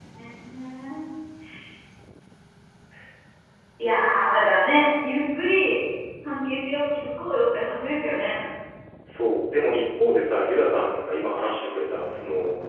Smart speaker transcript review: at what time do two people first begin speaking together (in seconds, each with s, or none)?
none